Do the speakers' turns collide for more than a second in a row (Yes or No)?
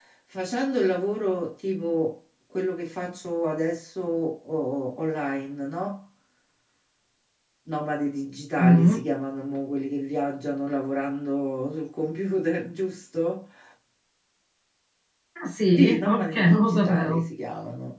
Yes